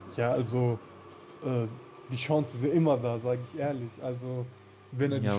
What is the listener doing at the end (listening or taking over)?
taking over